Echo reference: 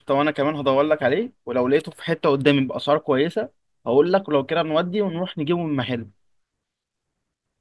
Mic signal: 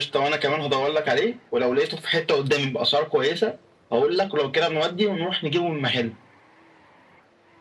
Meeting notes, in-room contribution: none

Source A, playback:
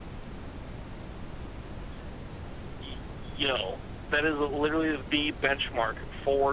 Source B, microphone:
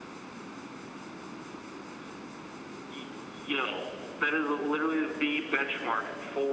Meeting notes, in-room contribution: none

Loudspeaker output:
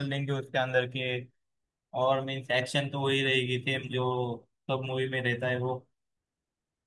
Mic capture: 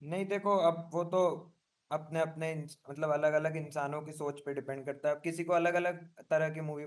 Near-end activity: present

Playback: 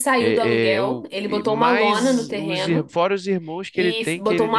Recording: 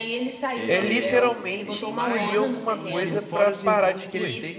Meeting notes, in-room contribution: present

